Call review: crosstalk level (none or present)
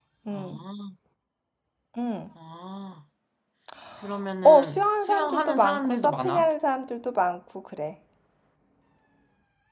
present